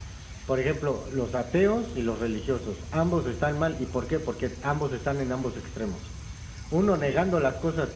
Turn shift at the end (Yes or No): No